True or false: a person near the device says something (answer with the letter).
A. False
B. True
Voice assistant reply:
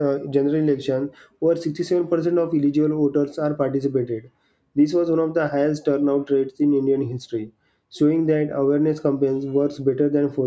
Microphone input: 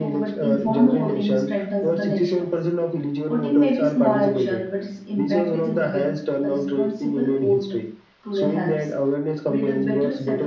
B